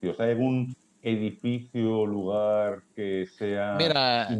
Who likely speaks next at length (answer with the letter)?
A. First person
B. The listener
B